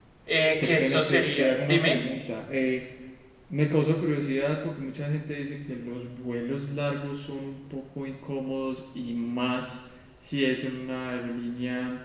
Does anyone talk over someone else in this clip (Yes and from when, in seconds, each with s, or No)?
Yes, from 0.6 s